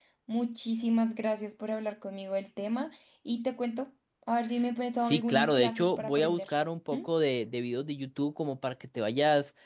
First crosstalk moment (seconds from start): 5.0 s

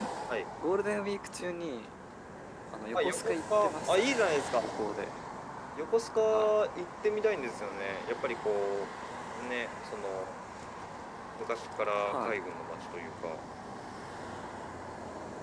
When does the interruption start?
3.0 s

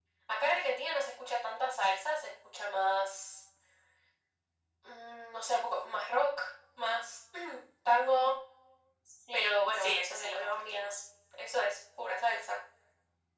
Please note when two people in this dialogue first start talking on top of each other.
9.3 s

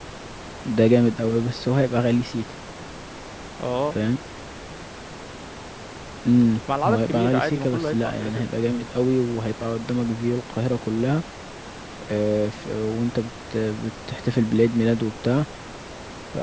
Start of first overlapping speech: 6.8 s

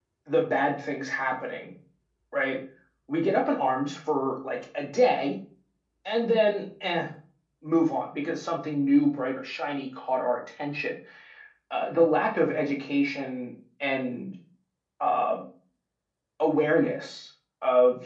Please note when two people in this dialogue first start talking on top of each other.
none

